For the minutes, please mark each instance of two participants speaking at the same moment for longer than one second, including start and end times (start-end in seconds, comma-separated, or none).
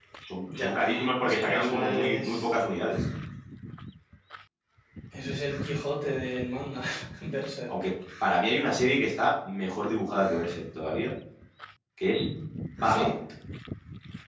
0.6-2.5